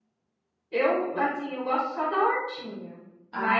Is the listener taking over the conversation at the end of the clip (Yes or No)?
No